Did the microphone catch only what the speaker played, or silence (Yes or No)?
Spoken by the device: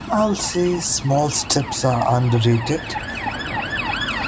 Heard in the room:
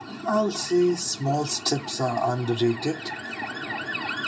Yes